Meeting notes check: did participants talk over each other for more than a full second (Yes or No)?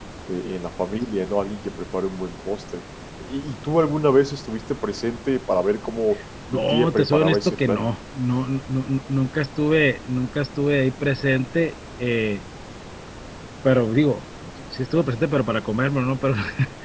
Yes